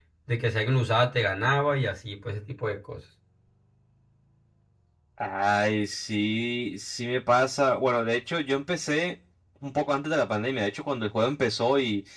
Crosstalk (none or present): none